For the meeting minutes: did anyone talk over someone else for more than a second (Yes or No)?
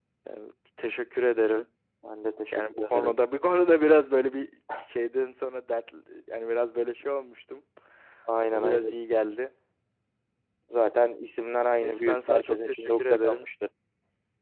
Yes